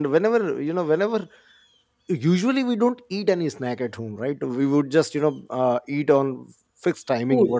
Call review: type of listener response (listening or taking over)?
listening